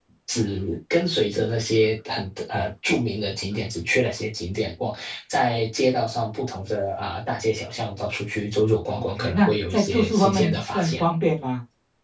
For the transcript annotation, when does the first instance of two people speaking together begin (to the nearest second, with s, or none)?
9 s